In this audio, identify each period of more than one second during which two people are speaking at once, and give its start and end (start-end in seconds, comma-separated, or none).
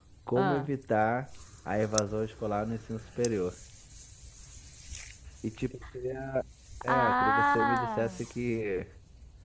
6.8-8.2